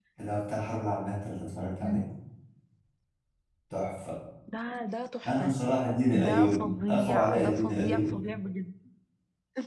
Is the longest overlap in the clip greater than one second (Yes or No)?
Yes